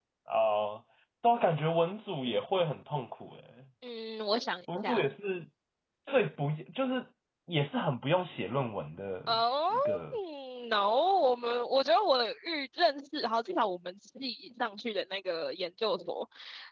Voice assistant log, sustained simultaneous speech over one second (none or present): none